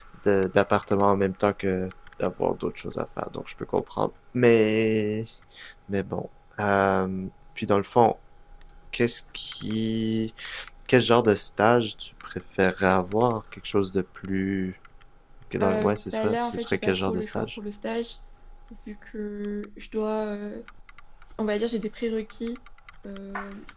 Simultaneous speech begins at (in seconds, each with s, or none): 15.6 s